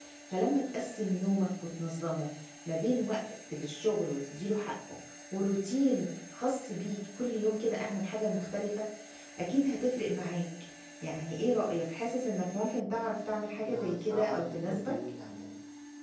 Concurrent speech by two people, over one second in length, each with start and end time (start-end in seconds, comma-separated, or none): 13.6-15.0